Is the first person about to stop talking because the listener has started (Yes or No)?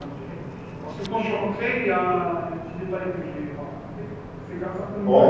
No